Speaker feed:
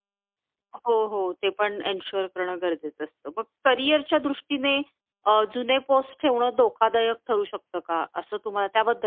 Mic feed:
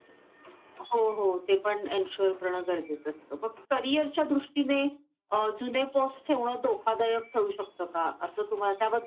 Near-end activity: none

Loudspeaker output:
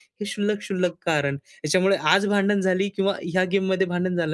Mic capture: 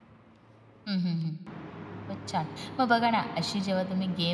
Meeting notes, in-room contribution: present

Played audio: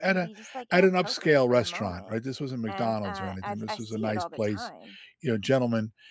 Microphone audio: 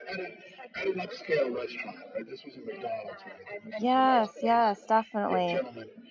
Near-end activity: present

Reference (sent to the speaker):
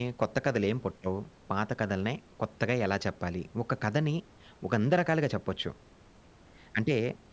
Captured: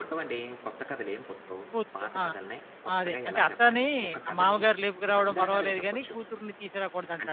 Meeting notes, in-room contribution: present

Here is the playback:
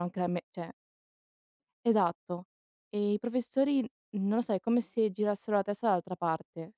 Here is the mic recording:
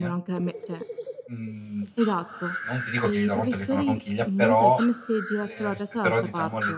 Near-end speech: present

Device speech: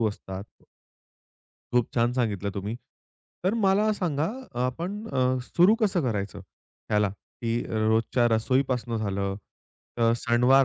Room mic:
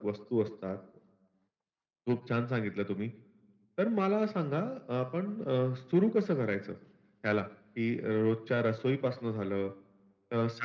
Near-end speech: none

